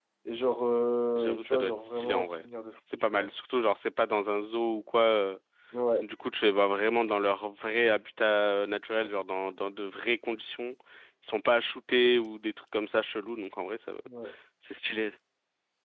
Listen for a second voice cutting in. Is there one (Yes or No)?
Yes